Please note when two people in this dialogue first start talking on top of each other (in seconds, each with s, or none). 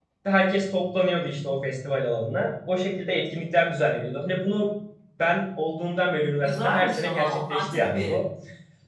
6.4 s